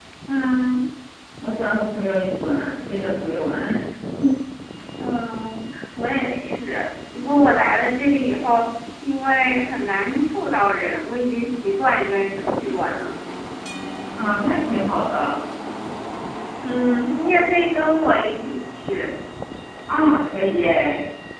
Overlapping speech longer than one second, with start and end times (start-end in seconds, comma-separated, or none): none